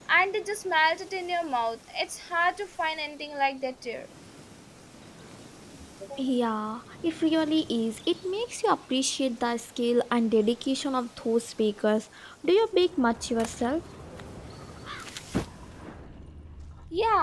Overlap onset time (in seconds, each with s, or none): none